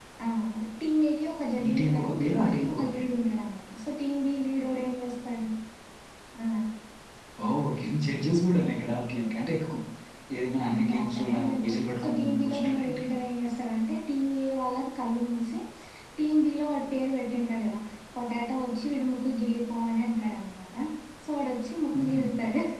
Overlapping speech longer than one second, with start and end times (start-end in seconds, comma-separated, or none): 1.6-3.1, 10.7-13.0